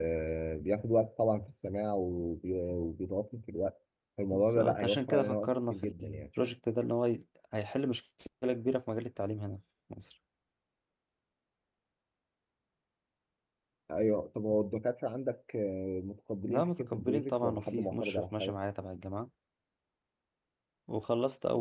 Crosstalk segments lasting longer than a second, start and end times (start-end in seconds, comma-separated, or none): 4.3-6.2, 16.4-18.6